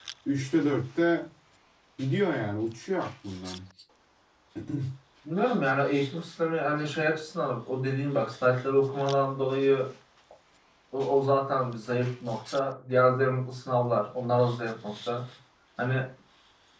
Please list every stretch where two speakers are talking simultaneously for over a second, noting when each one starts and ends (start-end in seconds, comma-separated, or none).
none